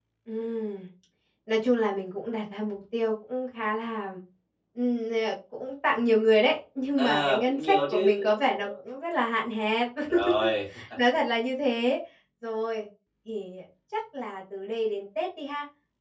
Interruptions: present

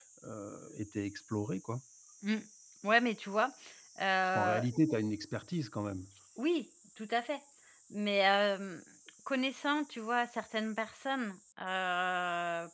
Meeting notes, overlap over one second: none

